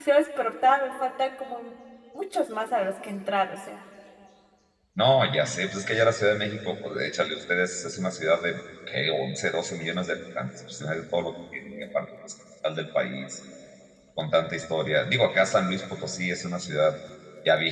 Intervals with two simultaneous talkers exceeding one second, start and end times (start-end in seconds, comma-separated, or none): none